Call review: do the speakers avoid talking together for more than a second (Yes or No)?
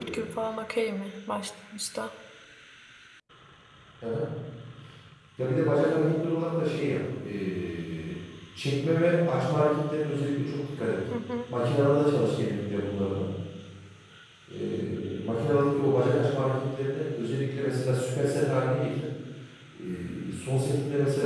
Yes